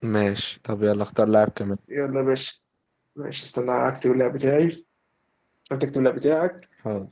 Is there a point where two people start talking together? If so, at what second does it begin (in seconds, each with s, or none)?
none